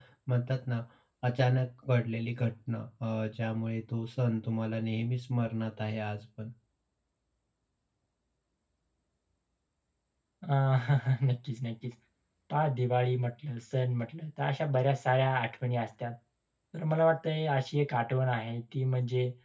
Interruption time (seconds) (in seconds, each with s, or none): none